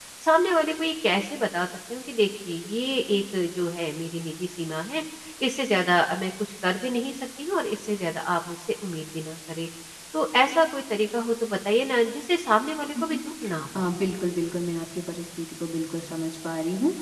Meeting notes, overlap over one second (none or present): none